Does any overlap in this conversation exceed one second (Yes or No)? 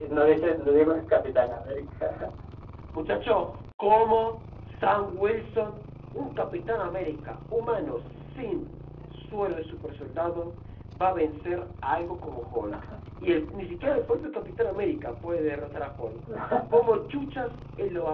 No